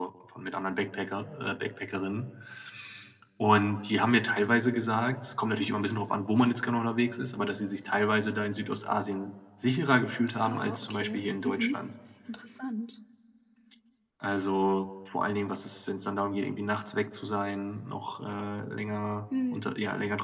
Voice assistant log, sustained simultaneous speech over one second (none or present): present